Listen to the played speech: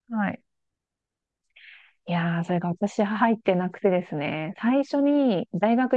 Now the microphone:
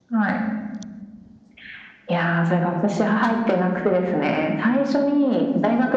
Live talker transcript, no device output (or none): none